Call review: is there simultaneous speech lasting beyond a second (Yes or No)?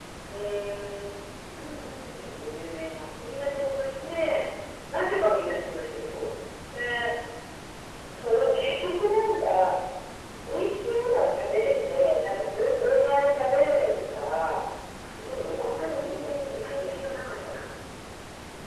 Yes